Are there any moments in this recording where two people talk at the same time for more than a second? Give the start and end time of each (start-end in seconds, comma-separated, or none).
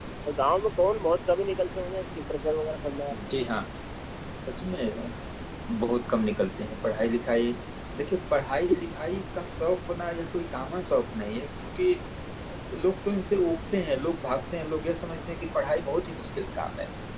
none